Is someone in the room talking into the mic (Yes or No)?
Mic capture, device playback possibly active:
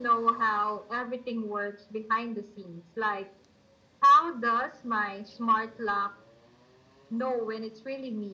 No